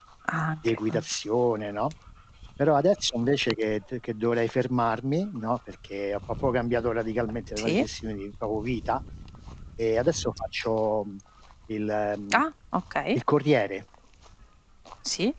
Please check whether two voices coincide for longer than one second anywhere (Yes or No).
No